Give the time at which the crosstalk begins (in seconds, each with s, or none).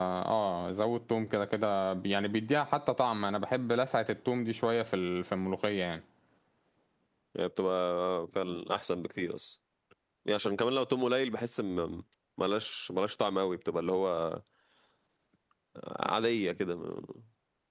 none